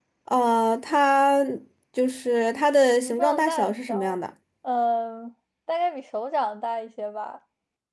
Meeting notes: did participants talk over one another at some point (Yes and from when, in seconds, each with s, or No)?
Yes, from 2.9 s